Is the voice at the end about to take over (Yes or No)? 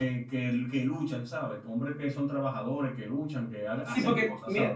Yes